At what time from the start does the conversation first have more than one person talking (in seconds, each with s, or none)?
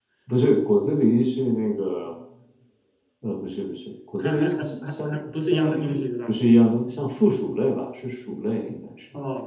4.2 s